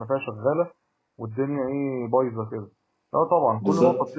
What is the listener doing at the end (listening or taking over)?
listening